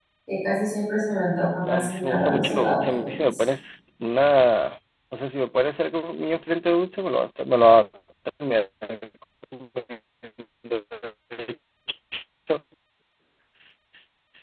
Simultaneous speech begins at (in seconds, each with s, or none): 1.6 s